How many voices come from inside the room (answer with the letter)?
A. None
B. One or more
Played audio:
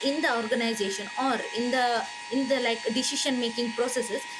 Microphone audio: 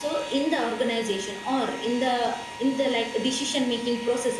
A